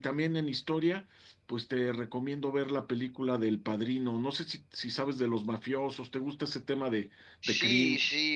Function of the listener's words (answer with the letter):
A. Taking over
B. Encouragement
A